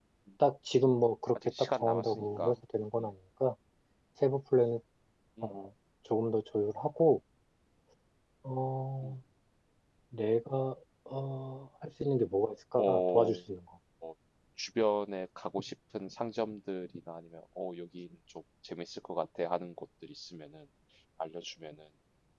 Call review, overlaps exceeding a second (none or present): present